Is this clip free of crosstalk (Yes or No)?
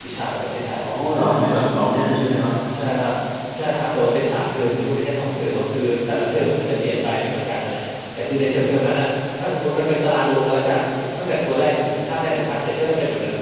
Yes